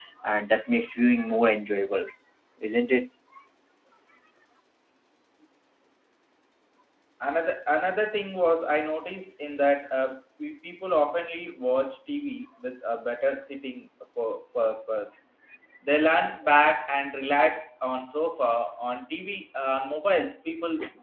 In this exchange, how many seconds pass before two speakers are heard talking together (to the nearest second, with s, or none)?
none